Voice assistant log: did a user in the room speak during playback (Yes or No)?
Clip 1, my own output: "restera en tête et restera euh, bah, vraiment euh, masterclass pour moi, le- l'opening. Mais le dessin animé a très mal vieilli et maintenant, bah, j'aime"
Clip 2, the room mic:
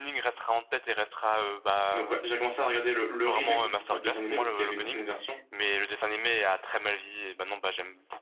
Yes